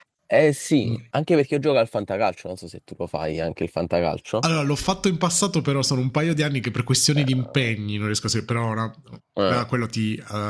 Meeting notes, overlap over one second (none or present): none